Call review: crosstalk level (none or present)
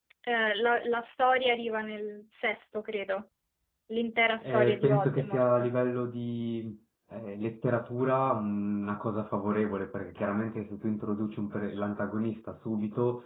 present